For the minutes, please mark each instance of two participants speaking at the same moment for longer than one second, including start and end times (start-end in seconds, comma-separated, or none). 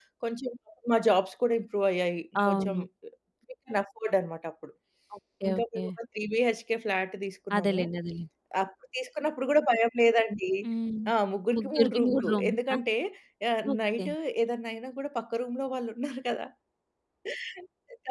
11.5-12.8